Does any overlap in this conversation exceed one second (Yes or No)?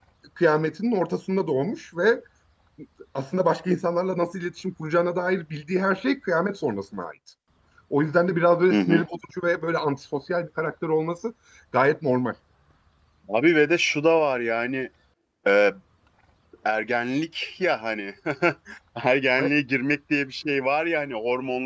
No